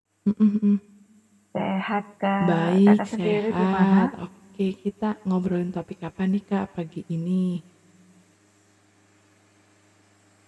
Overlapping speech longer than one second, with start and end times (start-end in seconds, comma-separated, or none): 2.5-4.0